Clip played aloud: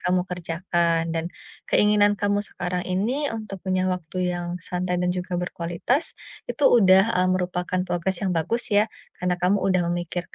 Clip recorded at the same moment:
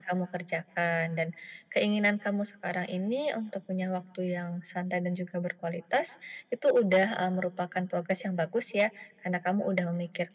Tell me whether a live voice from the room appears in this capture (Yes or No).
No